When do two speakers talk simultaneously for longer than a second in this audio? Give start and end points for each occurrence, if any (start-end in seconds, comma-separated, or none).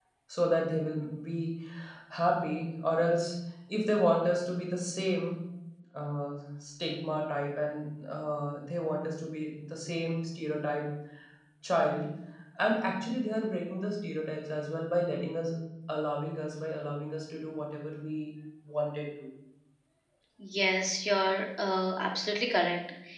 none